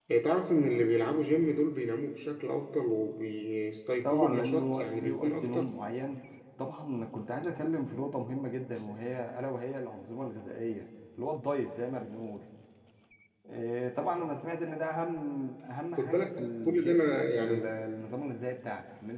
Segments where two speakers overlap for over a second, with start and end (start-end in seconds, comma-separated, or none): 4.0-5.7, 16.0-17.8